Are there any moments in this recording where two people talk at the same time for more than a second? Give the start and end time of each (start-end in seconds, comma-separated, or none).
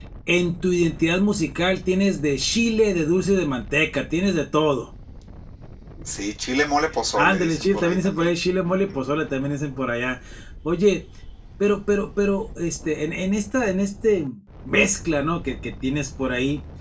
7.2-8.4